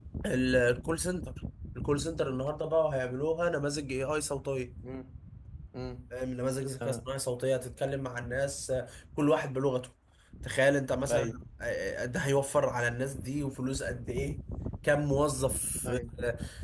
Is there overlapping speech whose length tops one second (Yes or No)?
No